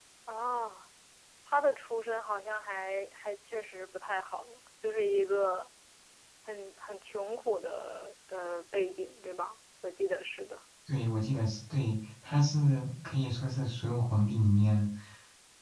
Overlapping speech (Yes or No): No